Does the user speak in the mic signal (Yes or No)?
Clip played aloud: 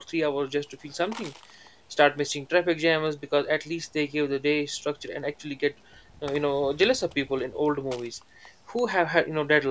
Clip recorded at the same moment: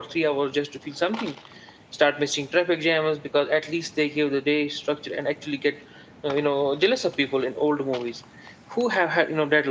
No